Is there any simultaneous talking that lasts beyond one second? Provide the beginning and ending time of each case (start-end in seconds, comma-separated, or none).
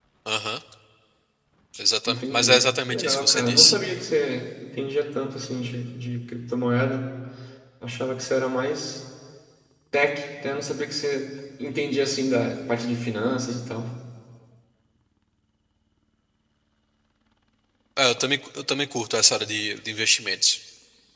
2.1-3.7